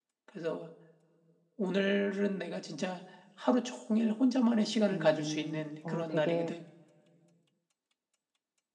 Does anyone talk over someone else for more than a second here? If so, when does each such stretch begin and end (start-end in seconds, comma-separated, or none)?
4.9-6.5